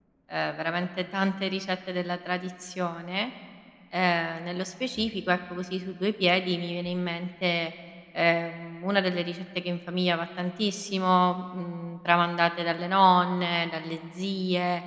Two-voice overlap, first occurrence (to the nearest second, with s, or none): none